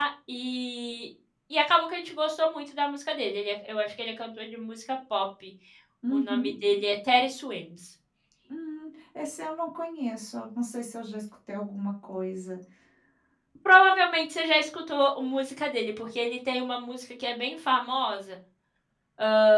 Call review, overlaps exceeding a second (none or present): none